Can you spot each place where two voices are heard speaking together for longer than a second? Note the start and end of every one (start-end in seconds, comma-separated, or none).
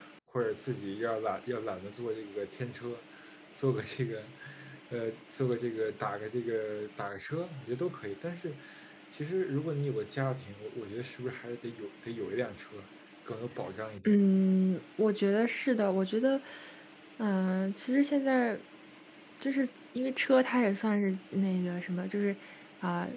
none